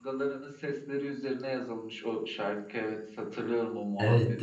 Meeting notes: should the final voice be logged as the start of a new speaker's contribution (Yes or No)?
Yes